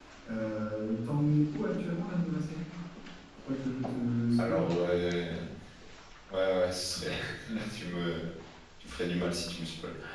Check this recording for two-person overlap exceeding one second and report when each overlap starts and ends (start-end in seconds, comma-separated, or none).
none